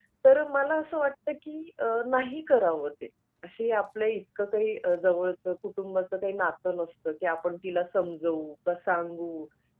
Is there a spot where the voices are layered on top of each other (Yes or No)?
No